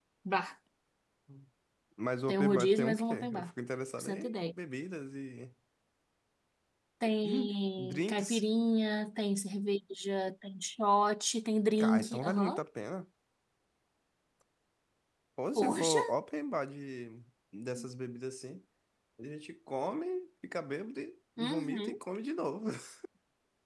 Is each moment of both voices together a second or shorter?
No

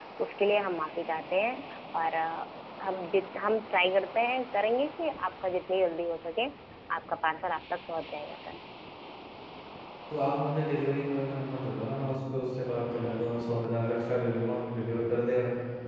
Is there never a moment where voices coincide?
Yes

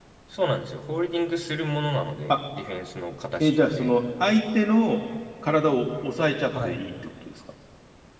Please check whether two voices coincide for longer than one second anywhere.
No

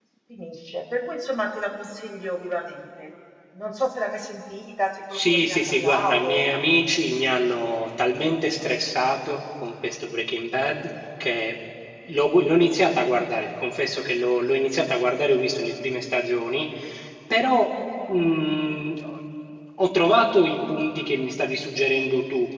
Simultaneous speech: Yes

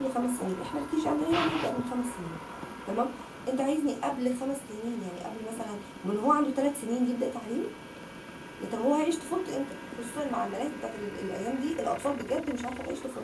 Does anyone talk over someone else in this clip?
No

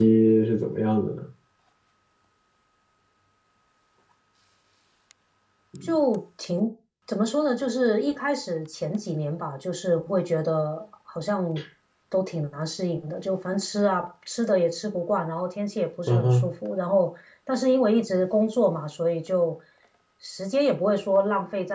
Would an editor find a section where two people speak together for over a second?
No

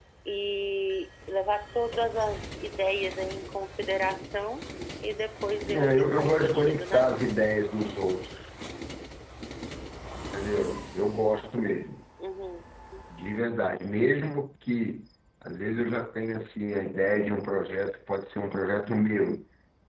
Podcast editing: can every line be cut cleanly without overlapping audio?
No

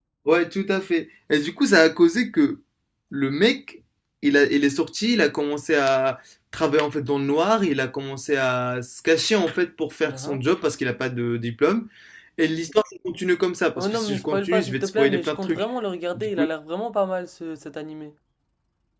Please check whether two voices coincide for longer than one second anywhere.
Yes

